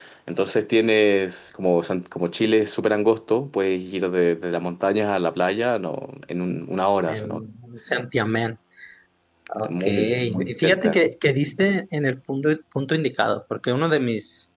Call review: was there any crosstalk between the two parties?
Yes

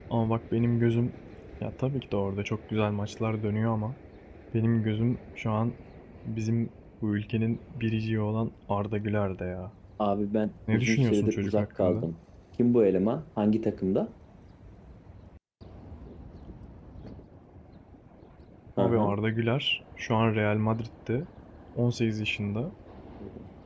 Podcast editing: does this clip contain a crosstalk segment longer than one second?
Yes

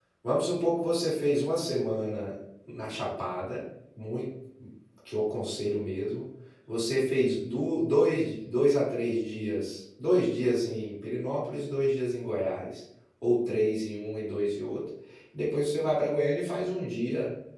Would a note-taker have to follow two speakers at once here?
No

